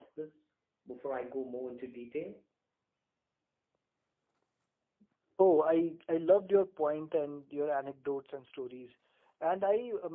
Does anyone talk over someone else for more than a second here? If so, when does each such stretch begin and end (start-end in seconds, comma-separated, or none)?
none